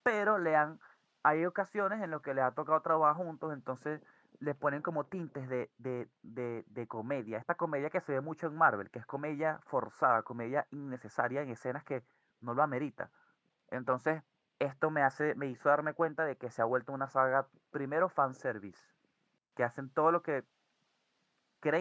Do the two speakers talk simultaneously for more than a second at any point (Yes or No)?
No